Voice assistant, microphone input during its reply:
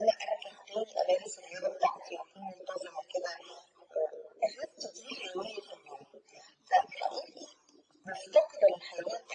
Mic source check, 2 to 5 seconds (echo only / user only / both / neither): echo only